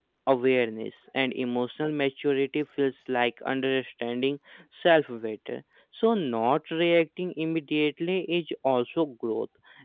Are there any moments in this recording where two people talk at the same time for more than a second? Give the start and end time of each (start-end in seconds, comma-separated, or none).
none